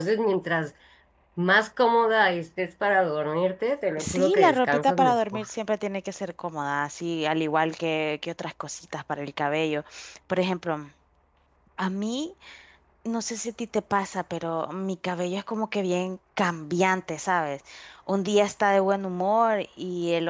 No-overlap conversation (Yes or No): No